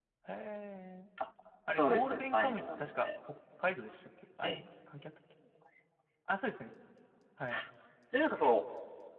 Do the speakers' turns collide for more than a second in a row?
Yes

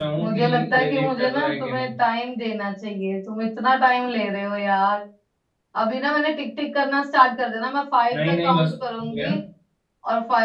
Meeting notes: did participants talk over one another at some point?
Yes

